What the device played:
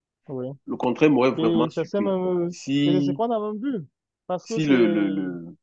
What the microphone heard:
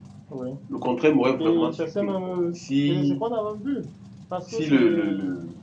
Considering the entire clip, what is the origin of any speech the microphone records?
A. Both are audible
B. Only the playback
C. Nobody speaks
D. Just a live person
B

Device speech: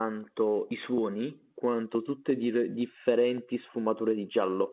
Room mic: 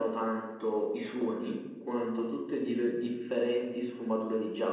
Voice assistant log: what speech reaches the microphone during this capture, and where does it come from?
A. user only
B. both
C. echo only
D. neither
C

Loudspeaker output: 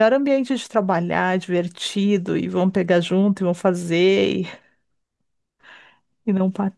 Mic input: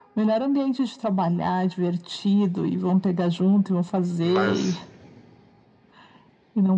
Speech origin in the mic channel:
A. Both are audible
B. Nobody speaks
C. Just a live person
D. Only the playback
A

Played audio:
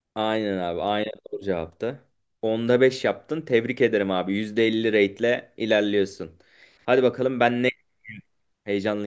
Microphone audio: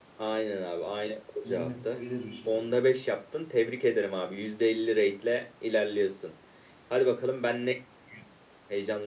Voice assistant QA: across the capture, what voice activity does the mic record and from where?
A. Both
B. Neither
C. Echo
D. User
A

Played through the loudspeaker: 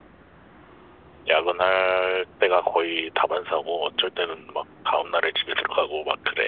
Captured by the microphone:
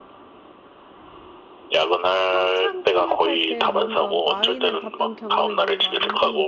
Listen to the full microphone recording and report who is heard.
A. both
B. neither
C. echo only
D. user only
A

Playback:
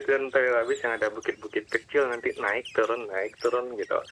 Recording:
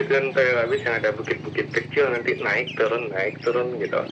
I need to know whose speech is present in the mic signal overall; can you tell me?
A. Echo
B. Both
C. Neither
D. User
A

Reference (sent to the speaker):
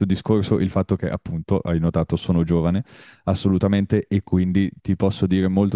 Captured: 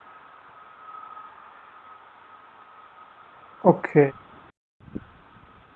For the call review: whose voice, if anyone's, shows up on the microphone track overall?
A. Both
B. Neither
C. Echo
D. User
D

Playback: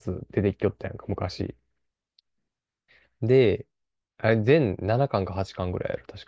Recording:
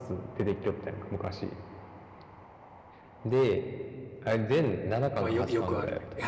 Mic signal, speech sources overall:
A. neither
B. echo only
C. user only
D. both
D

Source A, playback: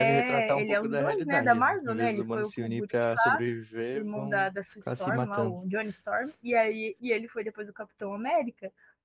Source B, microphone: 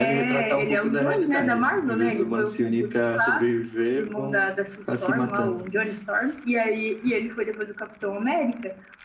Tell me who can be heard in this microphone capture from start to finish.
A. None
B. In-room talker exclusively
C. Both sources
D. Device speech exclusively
D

